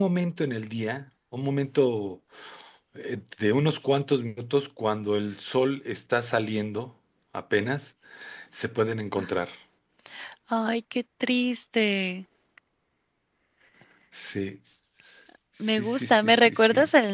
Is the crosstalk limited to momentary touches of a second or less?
No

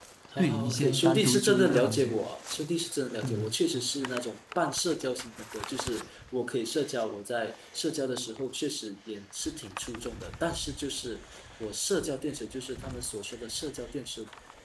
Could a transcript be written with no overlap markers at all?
No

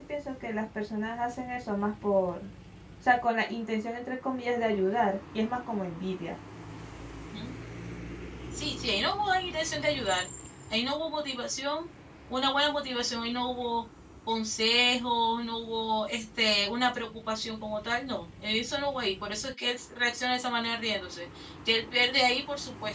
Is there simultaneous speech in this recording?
No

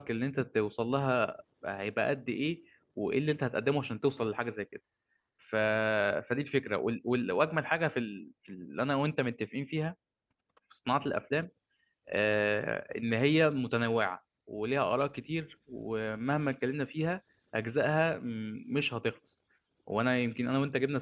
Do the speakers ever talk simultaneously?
No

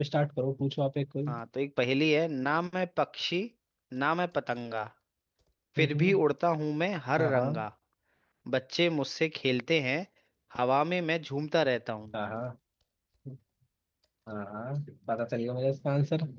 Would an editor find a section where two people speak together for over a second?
No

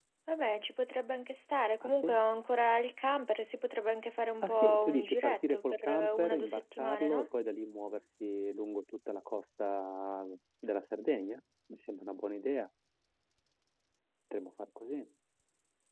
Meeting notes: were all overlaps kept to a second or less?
No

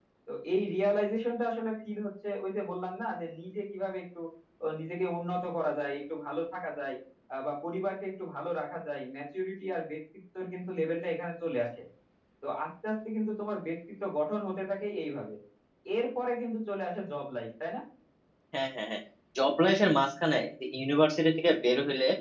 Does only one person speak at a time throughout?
Yes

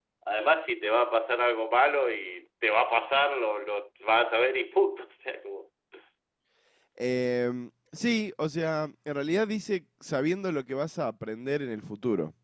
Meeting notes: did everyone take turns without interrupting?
Yes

